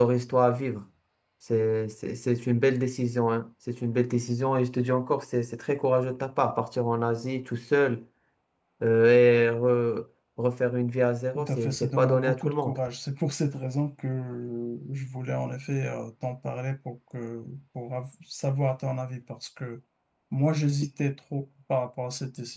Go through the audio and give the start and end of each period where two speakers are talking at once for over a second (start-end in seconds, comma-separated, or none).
11.3-12.8